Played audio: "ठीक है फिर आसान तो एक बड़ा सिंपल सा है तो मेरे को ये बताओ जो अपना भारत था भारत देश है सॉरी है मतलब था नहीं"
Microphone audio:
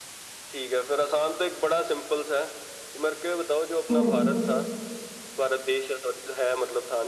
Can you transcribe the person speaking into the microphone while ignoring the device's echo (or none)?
हम्म,